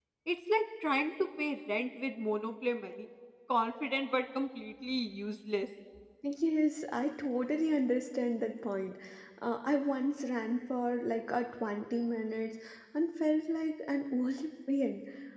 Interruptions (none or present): none